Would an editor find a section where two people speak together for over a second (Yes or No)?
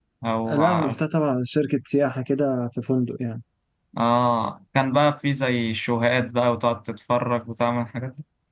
No